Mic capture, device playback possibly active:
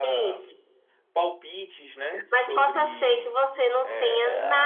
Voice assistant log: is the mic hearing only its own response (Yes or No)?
No